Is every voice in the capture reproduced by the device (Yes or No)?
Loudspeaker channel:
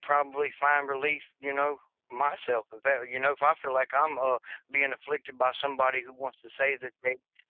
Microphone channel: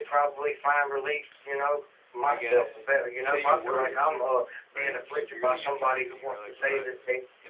No